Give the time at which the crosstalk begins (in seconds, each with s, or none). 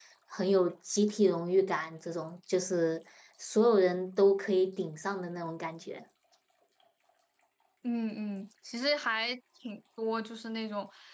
none